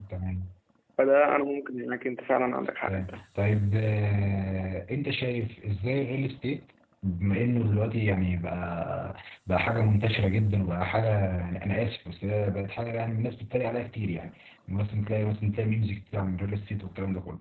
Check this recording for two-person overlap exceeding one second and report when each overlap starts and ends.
none

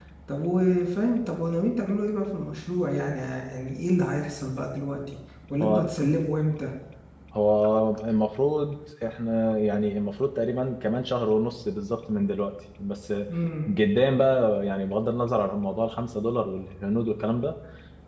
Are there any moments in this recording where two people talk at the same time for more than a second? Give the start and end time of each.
none

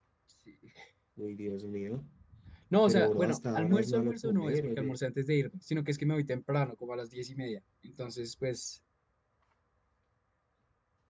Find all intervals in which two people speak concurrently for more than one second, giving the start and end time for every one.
2.9-4.9

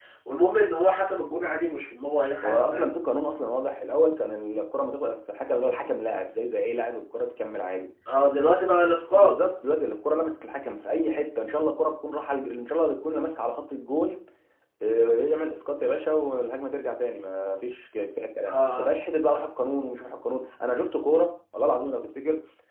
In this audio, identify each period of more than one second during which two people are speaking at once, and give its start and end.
none

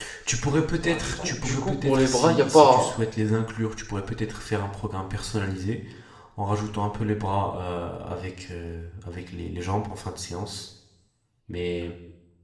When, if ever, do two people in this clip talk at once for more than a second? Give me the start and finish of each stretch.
0.8-2.8

